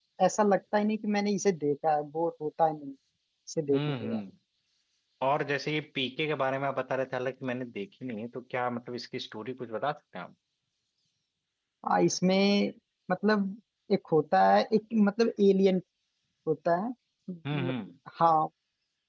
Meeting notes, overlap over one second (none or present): none